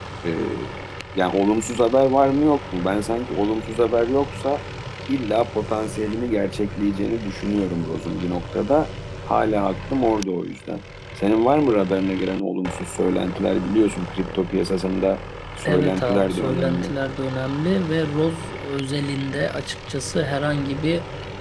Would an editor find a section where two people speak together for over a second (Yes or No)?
Yes